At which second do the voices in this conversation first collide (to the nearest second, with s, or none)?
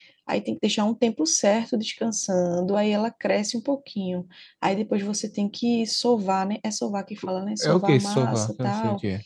8 s